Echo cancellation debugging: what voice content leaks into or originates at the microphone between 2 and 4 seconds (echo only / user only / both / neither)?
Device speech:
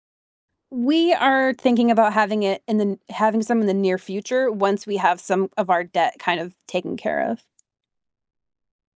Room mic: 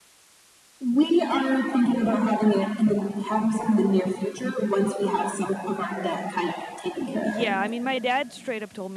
echo only